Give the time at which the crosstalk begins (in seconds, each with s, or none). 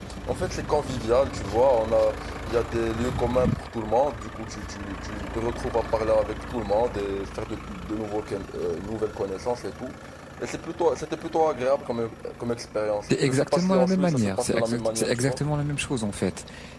13.1 s